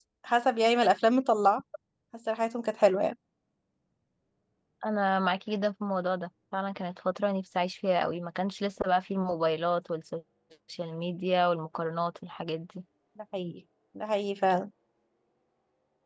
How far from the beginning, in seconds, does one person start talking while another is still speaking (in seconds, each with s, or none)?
none